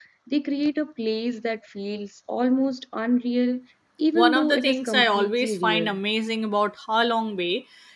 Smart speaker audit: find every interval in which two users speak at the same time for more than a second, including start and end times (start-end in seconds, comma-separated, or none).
4.2-6.0